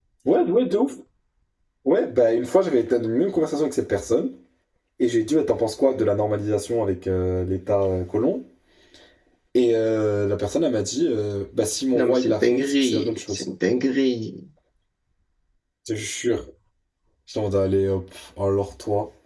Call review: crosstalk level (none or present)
present